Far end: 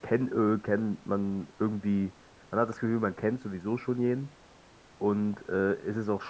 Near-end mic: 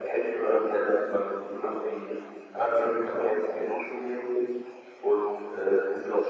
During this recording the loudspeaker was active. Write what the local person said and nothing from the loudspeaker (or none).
none